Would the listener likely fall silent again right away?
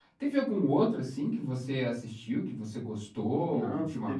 No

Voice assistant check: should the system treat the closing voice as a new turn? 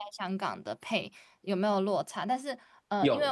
No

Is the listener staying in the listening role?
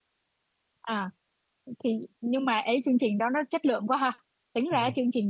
Yes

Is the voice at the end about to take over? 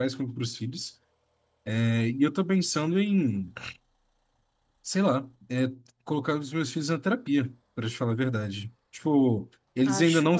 No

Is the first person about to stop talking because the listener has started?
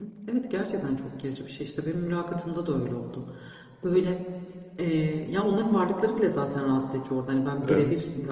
No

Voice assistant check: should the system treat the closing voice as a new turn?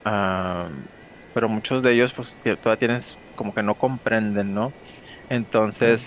No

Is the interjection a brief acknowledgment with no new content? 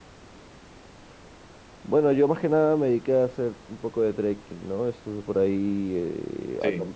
Yes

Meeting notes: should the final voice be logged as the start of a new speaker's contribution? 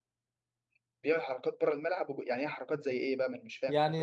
Yes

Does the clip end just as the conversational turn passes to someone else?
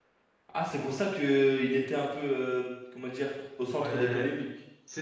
Yes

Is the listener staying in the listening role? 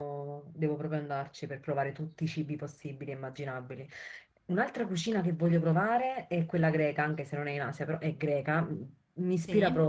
Yes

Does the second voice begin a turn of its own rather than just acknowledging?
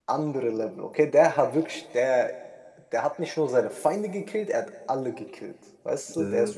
No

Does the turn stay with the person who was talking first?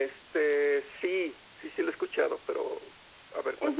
No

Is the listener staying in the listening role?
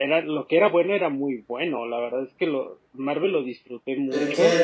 No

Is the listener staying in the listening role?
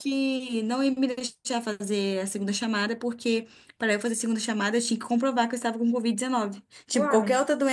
Yes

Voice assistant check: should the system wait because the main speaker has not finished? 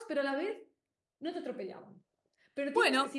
Yes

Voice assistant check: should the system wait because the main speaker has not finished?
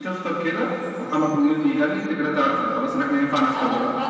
No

